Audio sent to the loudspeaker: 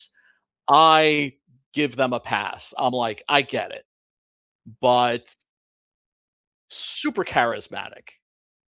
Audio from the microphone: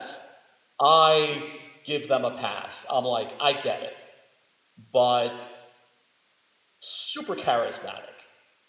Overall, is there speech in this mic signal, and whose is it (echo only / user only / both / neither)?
echo only